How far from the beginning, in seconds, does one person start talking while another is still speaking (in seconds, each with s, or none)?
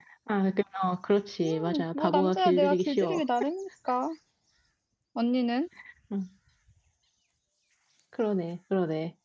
1.4 s